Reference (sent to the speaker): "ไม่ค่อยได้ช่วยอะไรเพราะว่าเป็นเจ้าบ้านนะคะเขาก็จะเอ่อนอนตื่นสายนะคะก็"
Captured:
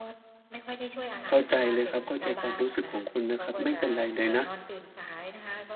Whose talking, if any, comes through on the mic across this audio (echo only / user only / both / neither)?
both